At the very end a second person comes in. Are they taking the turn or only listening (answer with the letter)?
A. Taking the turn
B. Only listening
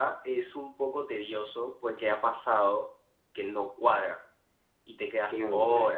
A